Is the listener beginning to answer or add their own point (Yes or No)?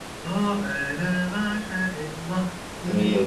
No